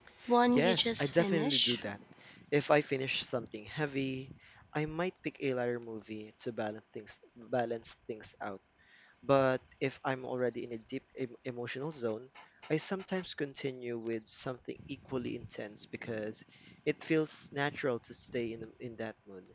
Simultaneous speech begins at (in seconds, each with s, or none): 0.5 s